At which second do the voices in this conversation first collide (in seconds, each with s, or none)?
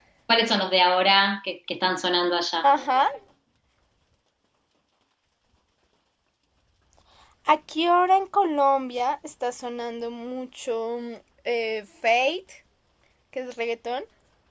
none